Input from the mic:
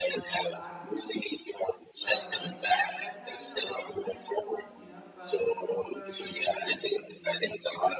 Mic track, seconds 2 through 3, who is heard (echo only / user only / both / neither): both